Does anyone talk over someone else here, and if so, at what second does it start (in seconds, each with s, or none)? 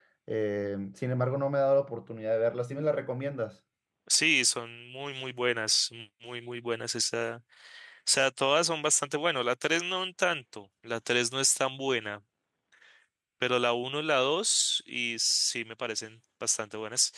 none